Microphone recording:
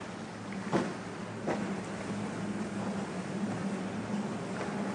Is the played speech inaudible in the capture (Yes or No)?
Yes